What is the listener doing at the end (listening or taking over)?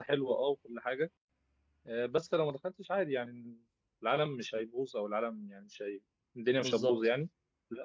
listening